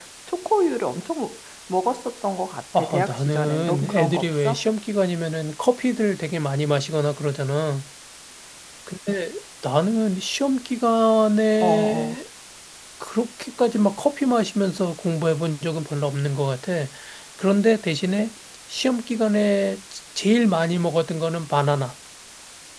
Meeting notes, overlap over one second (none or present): present